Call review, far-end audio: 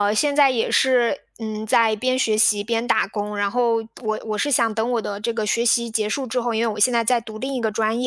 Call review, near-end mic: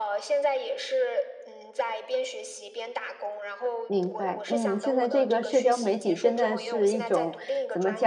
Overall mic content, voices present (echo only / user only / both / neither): both